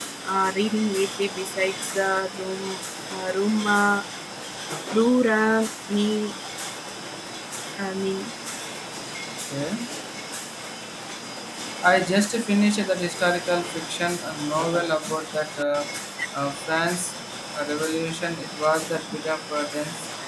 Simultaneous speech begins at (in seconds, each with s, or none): none